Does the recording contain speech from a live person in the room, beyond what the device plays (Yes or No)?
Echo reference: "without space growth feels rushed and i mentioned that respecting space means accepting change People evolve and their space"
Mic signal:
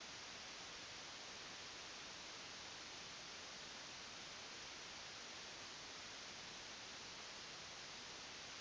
No